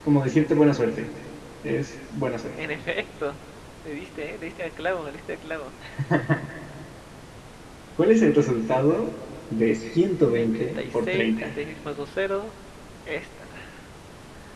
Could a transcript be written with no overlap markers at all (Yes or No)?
No